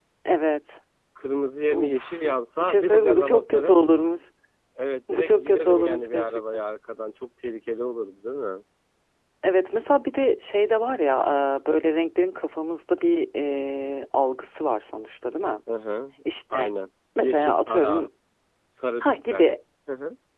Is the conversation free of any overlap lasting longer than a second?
No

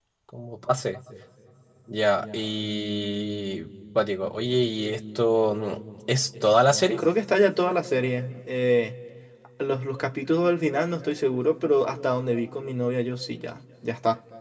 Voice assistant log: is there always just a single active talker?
Yes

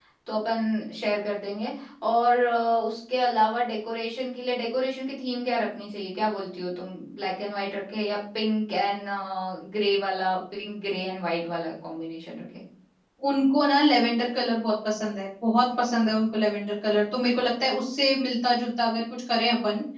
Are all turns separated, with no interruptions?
Yes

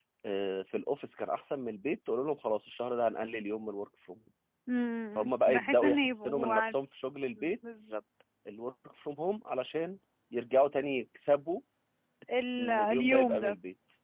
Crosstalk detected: Yes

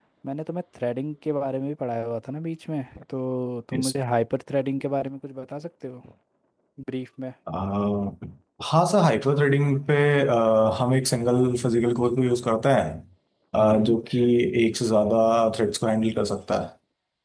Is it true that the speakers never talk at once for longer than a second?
Yes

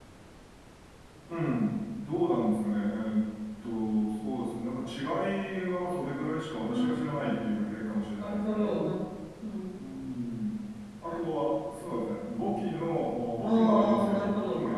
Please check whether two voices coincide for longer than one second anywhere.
Yes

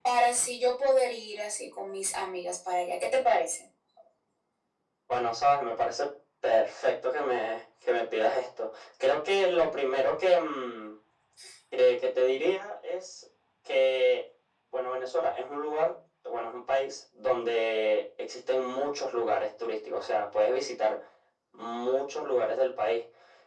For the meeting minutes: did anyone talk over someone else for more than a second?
No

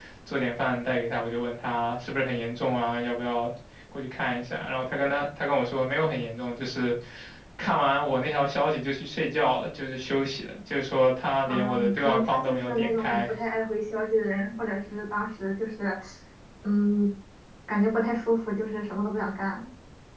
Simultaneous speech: Yes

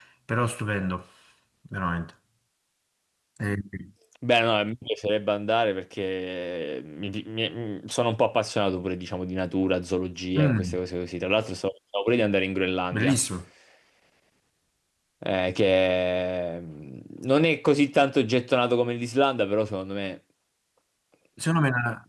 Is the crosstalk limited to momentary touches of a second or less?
Yes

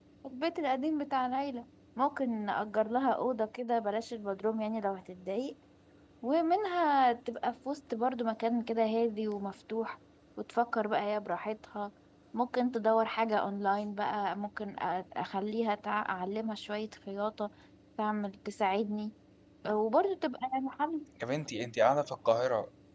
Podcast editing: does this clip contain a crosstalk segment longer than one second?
No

